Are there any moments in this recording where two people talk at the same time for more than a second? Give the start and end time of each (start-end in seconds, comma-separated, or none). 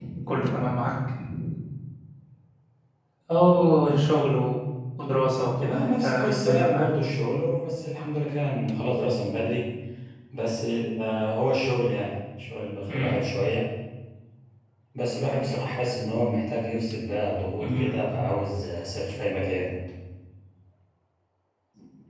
5.6-6.9